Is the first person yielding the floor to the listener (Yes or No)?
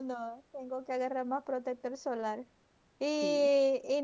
No